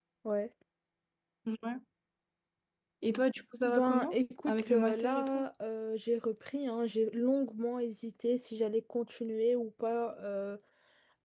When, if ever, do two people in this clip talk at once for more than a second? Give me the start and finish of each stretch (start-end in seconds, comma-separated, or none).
3.6-5.4